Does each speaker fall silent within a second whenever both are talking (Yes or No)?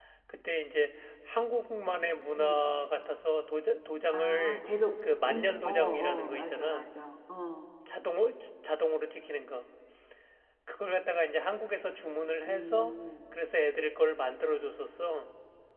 No